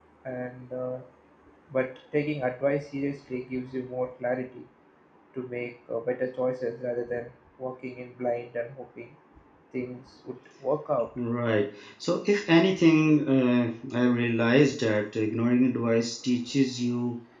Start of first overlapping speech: none

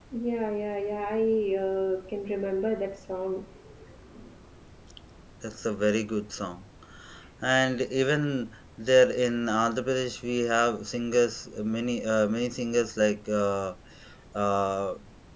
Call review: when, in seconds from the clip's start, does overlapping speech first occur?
none

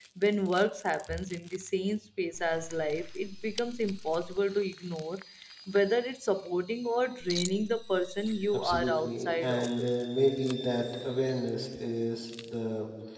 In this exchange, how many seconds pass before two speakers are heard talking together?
8.5 s

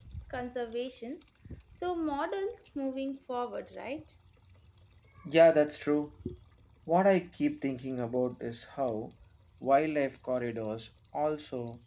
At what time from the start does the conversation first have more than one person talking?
none

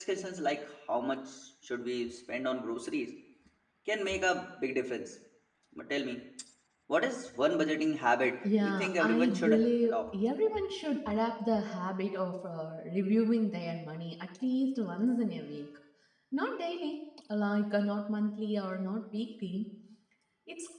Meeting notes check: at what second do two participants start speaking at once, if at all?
8.4 s

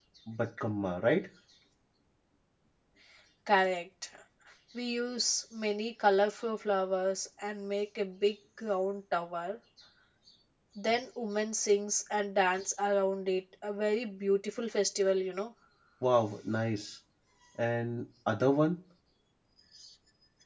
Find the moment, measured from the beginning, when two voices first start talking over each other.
none

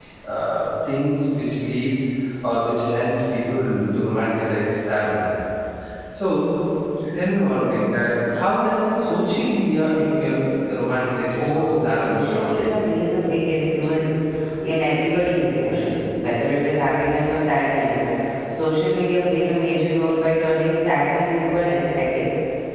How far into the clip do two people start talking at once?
11.3 s

